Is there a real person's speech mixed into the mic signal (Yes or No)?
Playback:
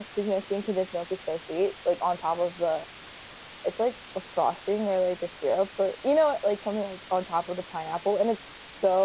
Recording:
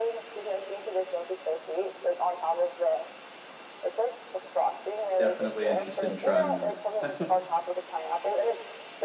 Yes